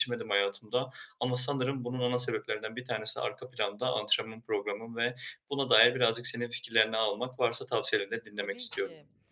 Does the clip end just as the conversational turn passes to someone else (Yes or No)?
Yes